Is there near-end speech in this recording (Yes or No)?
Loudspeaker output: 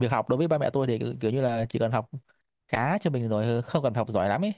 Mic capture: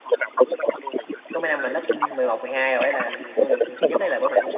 Yes